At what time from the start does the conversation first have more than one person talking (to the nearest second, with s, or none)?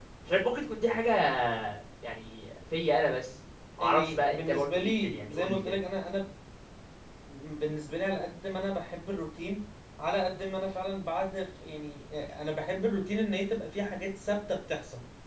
4 s